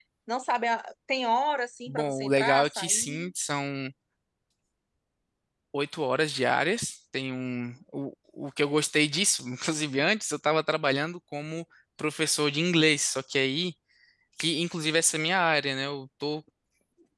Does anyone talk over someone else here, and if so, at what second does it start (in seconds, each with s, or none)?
1.9 s